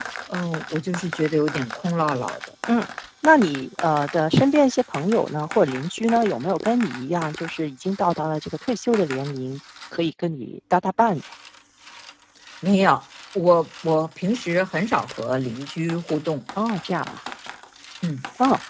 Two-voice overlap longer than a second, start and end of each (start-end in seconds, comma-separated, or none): none